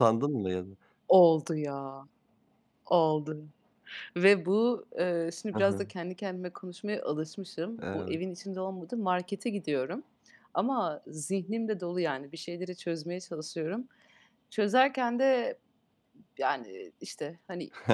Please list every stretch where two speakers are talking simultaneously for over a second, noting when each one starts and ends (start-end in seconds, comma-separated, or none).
none